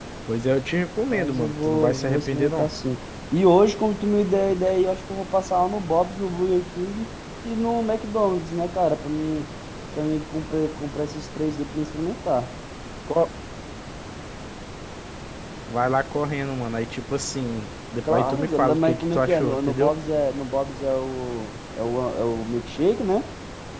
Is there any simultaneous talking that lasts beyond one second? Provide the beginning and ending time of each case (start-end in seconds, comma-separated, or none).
1.1-2.7, 18.1-19.9